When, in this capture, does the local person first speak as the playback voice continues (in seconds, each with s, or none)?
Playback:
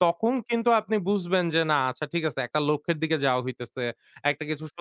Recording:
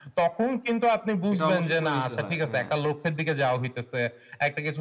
1.3 s